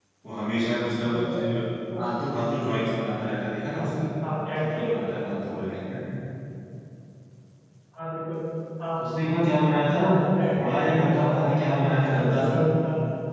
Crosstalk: present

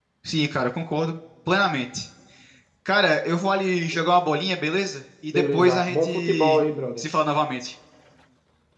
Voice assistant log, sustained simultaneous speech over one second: present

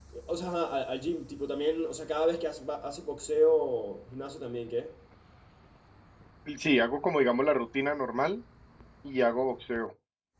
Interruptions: none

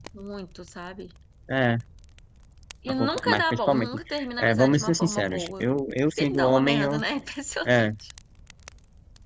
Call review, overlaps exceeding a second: present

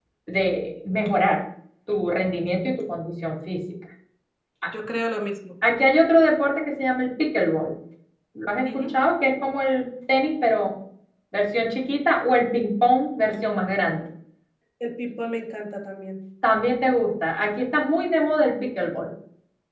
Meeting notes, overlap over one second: none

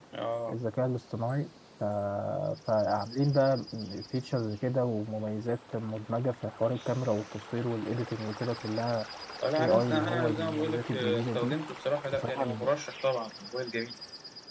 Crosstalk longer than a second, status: present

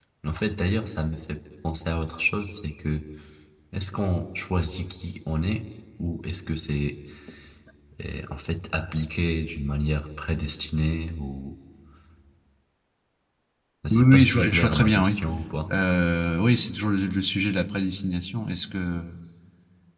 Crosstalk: present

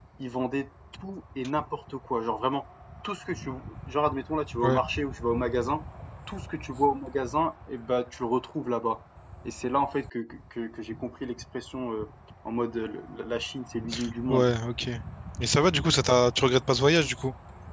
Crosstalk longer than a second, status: none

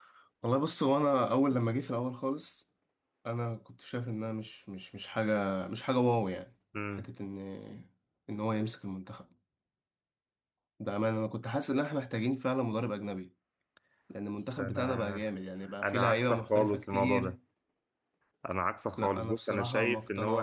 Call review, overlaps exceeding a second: present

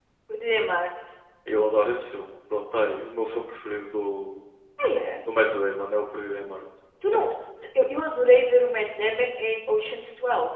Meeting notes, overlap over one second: none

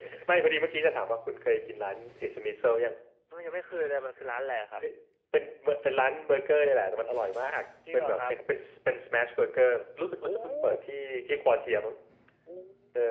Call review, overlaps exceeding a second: none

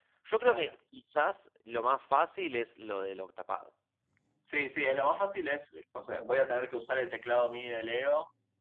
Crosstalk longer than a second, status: none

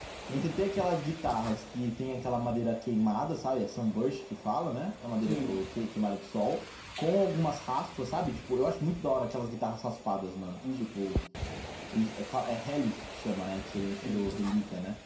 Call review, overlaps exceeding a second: none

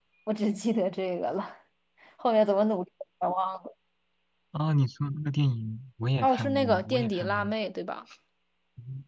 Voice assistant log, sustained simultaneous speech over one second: present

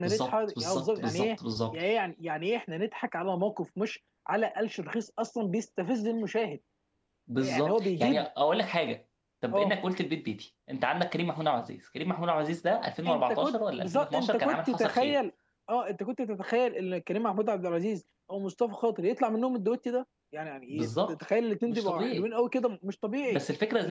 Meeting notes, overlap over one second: present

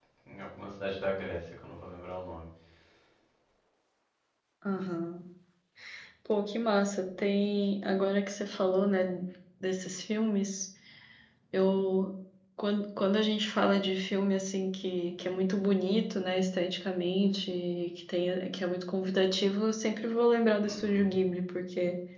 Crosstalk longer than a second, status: none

